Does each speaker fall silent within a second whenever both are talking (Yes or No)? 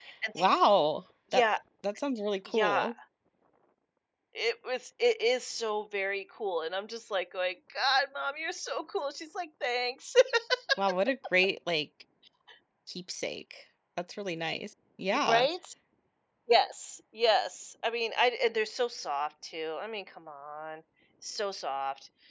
Yes